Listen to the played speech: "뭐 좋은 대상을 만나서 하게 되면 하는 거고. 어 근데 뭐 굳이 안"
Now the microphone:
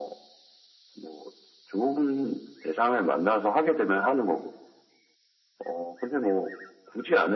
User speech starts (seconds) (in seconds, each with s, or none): none